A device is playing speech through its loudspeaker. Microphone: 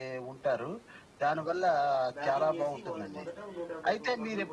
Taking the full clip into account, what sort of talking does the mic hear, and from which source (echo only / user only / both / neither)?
both